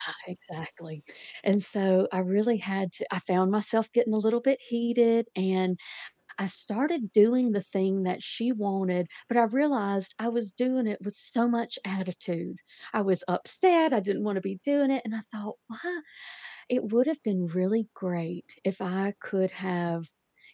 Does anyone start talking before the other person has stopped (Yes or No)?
No